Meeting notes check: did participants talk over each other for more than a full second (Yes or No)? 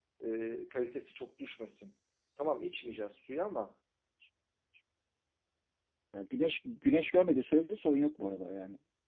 No